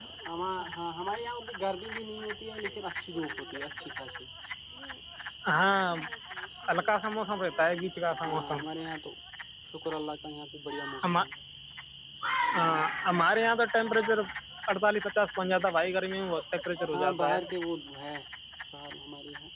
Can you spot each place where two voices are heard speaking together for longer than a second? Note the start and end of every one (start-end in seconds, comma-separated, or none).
none